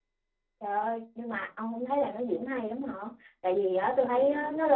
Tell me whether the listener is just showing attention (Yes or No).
Yes